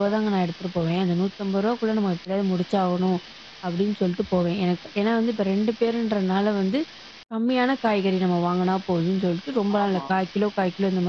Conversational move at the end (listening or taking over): listening